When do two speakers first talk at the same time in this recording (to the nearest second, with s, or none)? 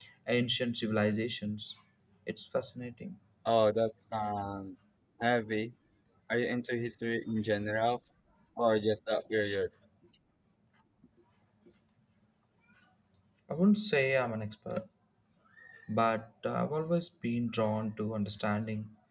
none